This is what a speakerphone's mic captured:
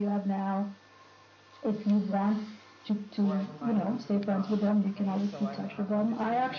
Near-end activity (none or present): present